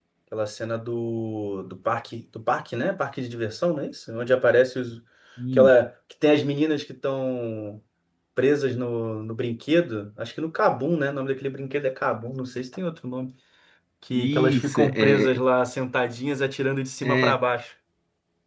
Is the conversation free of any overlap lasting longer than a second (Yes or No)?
No